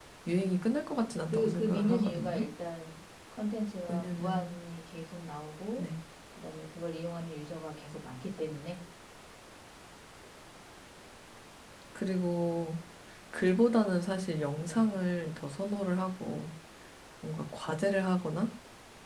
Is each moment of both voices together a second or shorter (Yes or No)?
No